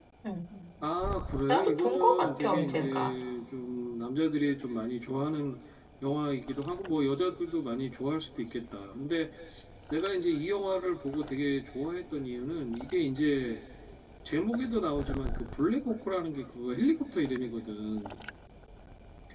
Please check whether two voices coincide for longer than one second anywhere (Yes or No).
Yes